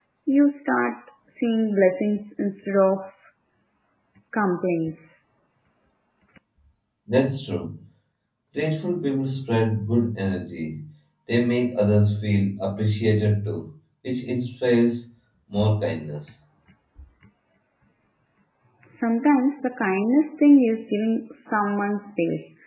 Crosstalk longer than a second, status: none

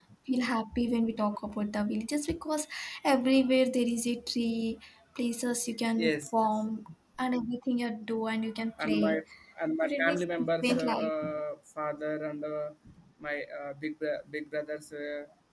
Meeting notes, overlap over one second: present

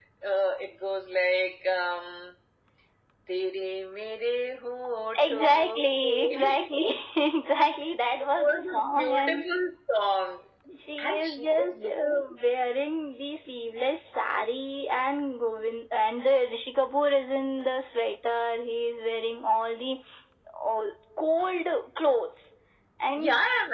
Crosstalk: present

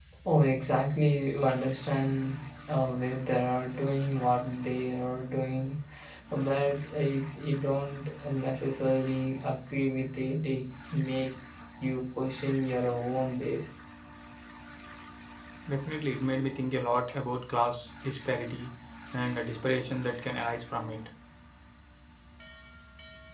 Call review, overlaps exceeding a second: none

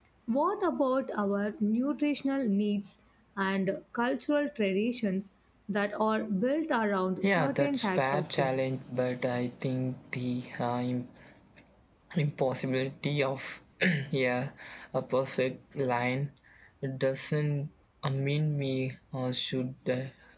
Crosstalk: present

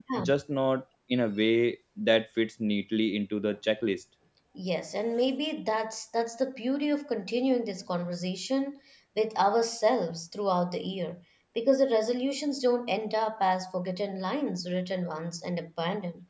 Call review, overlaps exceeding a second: none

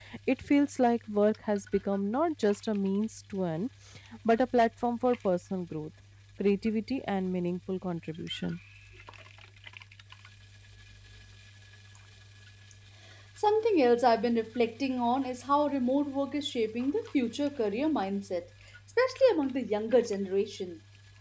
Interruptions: none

